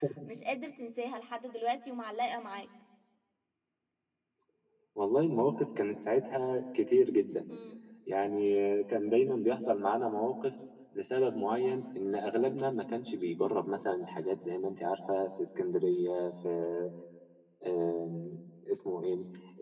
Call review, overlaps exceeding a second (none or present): none